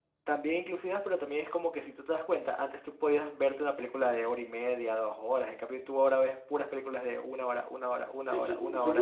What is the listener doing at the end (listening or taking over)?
taking over